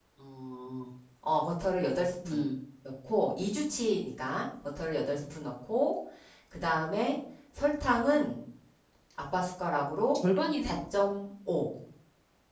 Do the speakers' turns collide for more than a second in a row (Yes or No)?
No